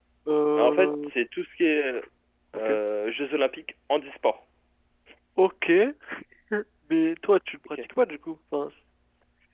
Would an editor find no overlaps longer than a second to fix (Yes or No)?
Yes